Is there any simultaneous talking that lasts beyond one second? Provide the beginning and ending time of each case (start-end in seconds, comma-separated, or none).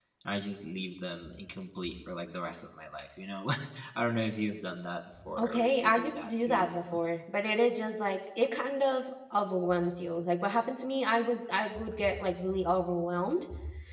5.4-7.0